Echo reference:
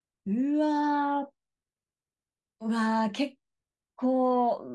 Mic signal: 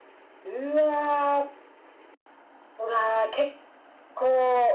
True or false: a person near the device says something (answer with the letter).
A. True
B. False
B